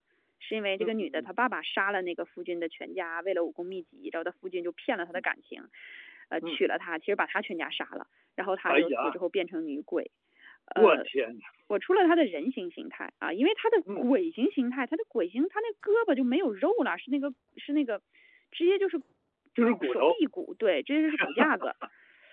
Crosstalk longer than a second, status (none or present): none